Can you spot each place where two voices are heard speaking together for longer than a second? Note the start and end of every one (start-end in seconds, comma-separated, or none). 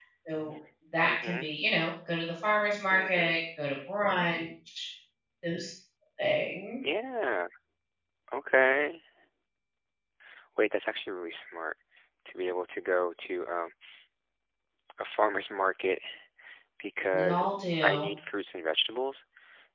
none